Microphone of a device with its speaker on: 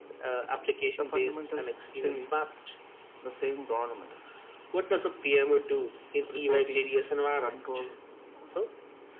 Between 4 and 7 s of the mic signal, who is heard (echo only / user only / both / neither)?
echo only